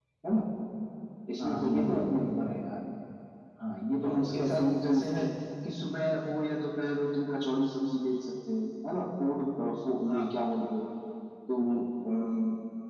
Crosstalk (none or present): present